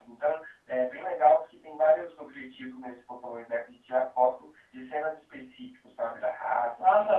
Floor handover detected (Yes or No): Yes